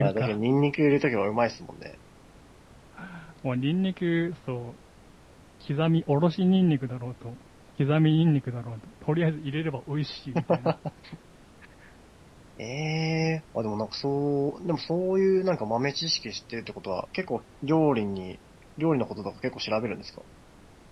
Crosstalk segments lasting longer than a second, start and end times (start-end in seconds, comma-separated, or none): none